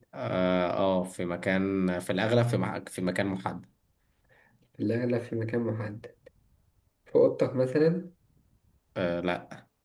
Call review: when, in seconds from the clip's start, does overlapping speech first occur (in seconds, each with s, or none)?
none